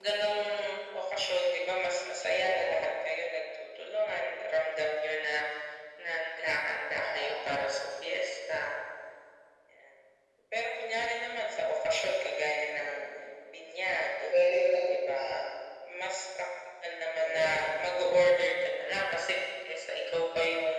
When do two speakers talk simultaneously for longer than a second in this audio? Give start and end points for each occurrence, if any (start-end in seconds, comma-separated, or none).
none